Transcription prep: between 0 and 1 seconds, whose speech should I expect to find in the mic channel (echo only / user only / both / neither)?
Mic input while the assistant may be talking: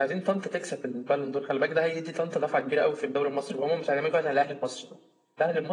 echo only